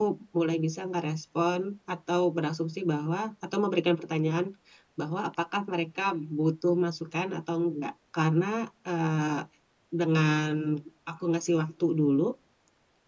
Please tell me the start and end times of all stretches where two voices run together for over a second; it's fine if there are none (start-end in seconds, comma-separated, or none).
none